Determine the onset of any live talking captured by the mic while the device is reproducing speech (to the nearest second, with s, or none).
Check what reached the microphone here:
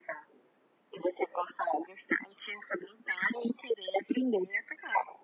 none